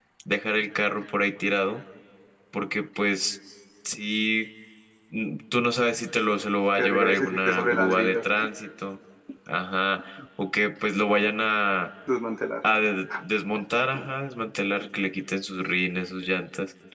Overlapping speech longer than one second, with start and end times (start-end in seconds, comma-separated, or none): 6.8-8.2